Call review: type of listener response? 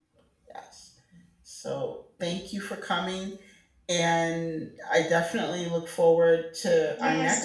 taking over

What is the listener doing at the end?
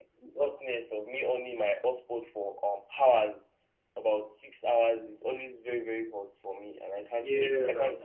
taking over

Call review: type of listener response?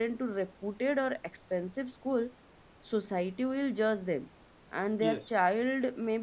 listening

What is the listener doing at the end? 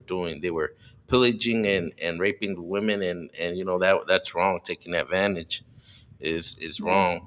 listening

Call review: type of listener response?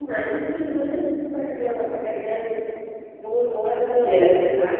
listening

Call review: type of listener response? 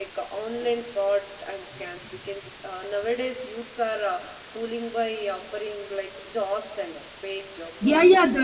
taking over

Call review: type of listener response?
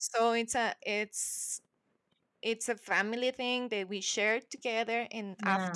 listening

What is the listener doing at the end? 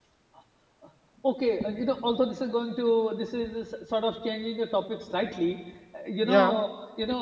listening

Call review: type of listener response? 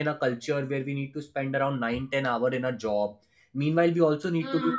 listening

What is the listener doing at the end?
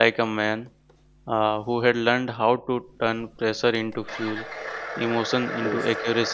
listening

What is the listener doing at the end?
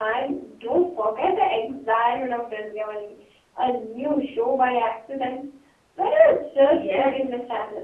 taking over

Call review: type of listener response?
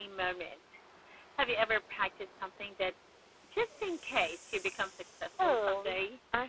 taking over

